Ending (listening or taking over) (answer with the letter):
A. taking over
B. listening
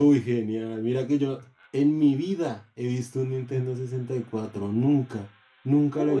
A